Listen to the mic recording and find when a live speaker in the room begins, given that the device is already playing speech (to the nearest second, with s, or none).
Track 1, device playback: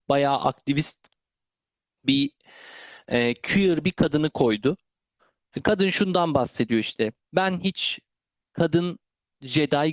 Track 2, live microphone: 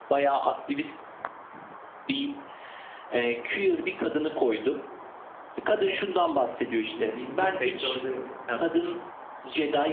6 s